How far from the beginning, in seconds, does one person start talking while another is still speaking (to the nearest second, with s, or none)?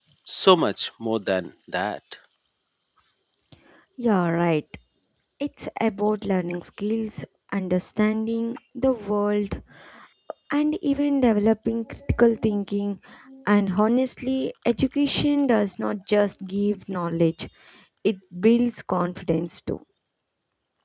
none